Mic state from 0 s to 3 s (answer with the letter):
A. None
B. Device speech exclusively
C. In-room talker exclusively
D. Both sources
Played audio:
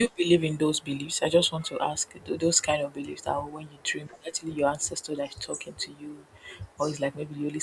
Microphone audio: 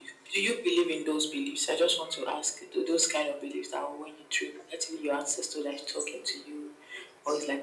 B